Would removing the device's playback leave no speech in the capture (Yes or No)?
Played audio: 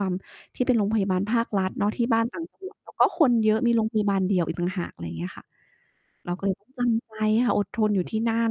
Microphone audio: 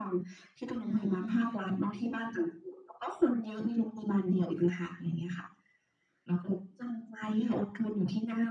No